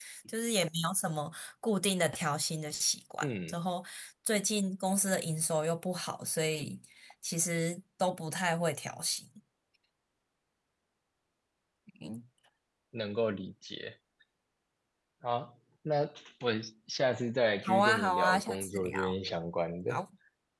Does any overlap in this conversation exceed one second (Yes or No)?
Yes